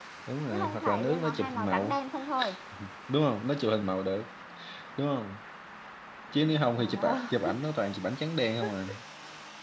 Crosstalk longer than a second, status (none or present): present